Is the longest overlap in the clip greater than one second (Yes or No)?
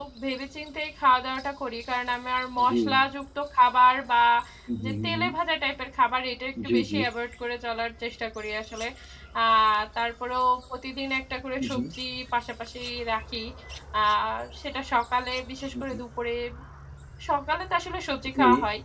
No